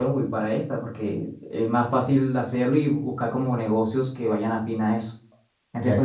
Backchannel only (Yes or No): No